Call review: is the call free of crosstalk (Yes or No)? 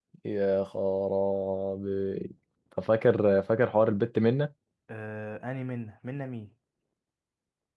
Yes